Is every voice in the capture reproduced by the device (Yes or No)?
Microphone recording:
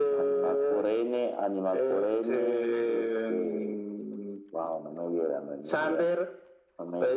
Yes